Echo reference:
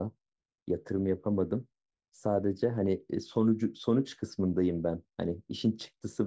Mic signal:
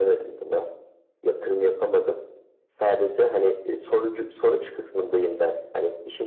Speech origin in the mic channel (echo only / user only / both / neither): echo only